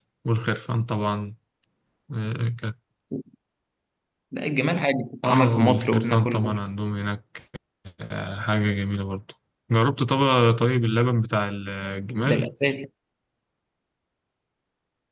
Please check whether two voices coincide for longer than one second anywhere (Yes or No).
Yes